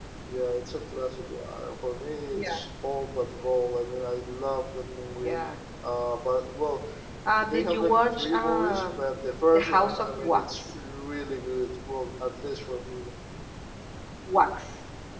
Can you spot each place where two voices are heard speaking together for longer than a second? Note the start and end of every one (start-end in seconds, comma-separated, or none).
7.4-9.1, 9.5-10.7